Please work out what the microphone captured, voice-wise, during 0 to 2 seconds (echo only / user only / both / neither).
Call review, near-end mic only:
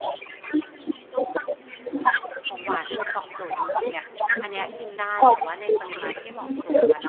echo only